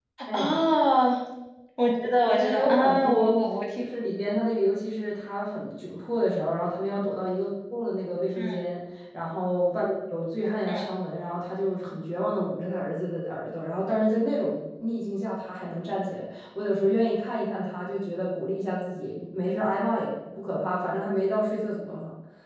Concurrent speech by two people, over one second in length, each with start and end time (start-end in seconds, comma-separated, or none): 2.0-3.3